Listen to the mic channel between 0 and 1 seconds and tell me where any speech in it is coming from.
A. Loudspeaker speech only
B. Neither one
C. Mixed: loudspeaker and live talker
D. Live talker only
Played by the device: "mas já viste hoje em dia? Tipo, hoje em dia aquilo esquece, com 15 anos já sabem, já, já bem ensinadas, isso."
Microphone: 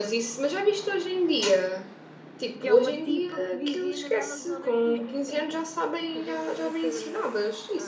A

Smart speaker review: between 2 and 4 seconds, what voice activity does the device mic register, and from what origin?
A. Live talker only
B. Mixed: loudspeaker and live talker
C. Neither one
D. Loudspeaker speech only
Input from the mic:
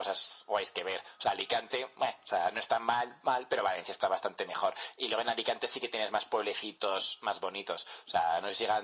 D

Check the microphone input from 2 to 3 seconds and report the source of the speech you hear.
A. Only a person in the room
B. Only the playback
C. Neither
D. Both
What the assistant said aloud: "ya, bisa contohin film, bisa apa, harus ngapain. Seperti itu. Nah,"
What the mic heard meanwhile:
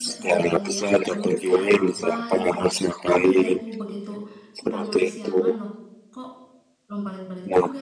D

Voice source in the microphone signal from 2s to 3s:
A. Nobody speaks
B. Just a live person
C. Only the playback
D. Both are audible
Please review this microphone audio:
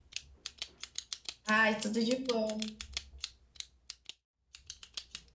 B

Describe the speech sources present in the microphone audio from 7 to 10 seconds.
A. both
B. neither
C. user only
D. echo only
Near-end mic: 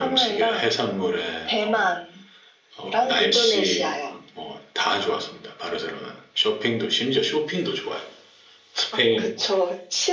D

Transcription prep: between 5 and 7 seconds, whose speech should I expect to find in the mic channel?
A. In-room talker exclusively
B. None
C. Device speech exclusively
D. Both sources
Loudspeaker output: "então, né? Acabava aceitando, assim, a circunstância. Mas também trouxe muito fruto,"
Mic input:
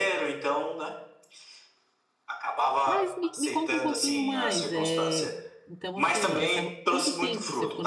D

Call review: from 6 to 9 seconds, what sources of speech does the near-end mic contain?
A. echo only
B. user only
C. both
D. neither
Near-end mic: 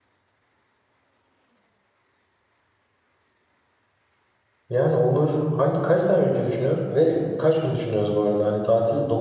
B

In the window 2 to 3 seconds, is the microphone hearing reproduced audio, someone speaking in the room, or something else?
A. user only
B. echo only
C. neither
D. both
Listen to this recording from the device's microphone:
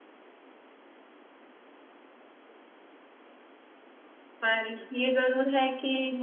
C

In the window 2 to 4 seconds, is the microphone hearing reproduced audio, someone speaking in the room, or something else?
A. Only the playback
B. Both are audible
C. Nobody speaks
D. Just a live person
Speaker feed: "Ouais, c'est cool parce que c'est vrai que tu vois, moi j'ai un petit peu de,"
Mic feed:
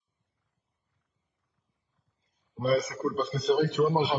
A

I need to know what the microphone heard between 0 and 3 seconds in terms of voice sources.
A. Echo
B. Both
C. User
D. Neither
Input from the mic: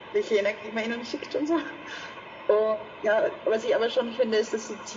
A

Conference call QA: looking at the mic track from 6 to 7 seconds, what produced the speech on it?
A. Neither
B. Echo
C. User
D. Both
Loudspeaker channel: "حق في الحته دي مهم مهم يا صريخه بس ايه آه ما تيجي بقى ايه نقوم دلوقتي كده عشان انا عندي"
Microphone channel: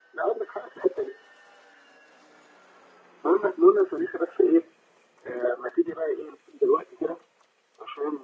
B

